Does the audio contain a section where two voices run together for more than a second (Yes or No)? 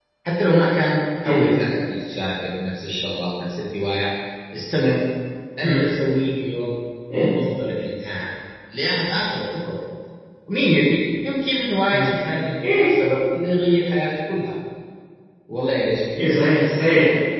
No